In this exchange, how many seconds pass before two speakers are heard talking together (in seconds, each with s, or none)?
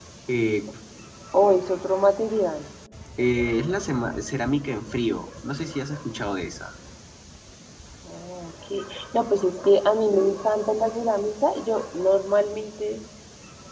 none